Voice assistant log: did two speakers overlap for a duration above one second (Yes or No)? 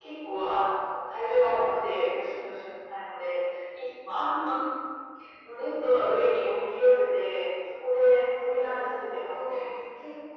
Yes